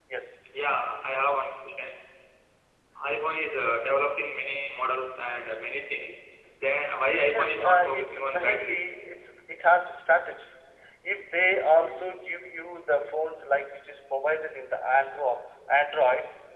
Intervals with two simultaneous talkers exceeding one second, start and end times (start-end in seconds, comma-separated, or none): 7.2-8.8